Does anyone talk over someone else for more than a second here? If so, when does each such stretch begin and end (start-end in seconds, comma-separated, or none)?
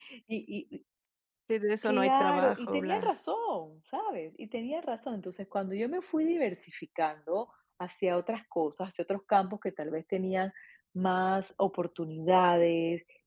1.8-3.1